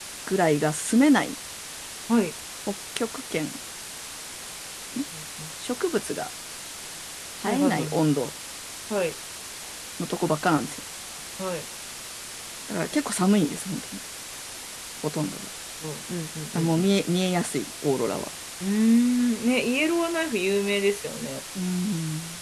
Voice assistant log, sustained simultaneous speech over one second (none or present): none